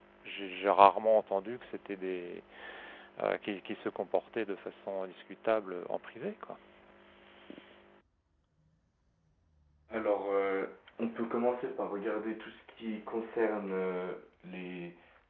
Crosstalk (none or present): none